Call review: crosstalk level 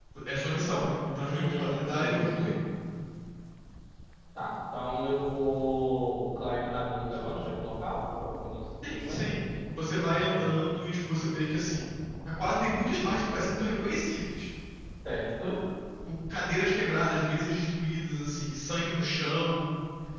present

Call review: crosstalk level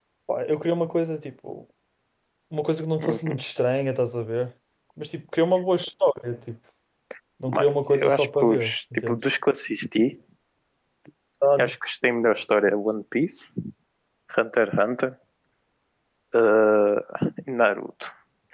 present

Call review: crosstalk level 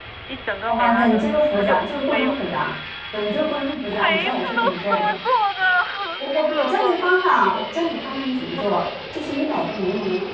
present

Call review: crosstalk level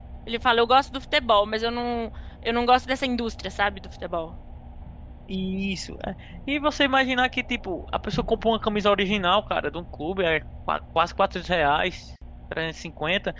none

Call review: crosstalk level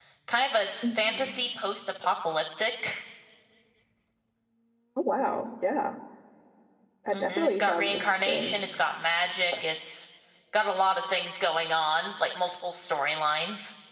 present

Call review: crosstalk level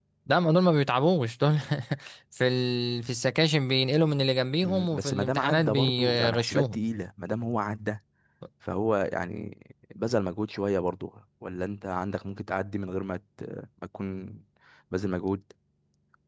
present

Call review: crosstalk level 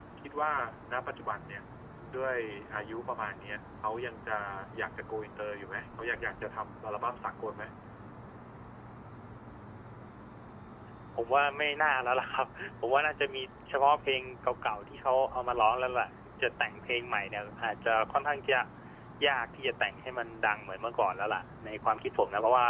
none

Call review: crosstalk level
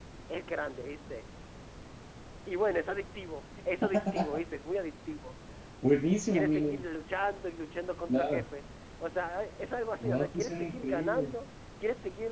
present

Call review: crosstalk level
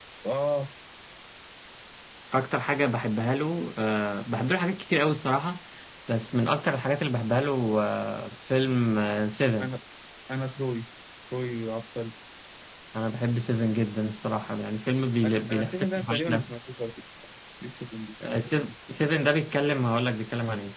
present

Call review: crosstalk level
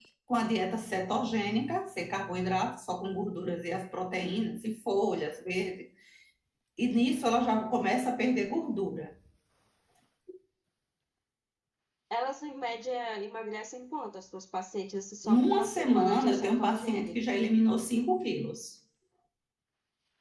present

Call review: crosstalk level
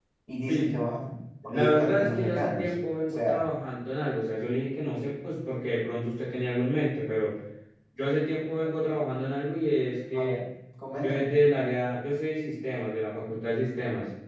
present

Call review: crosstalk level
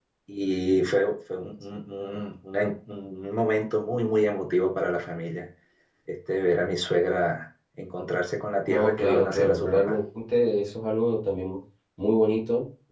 present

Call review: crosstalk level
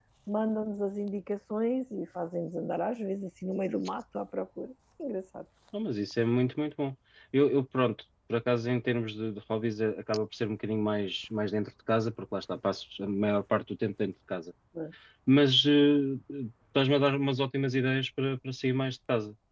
none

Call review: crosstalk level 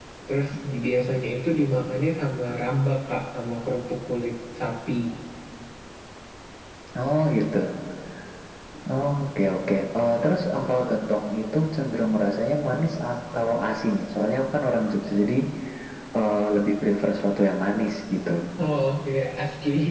none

